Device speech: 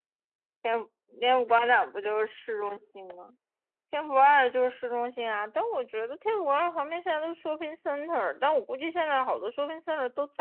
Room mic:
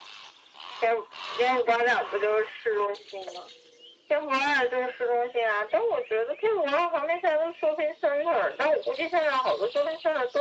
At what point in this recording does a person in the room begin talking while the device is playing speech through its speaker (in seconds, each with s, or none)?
none